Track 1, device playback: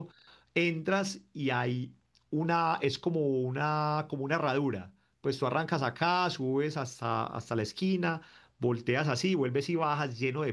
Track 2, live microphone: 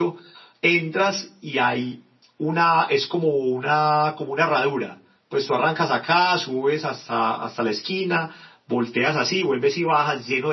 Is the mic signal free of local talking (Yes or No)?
Yes